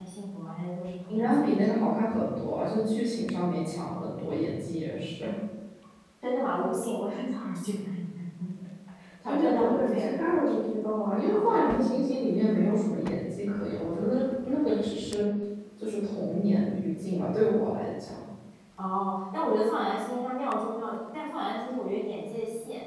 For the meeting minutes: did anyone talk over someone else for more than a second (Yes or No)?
Yes